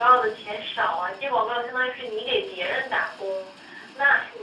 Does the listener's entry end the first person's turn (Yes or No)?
No